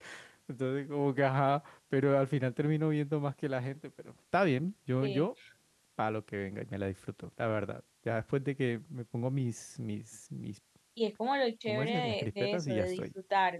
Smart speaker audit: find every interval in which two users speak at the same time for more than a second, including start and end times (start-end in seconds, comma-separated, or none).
11.7-13.0